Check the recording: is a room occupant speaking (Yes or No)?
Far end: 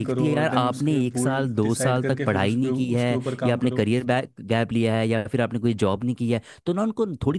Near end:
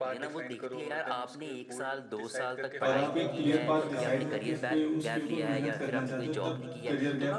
Yes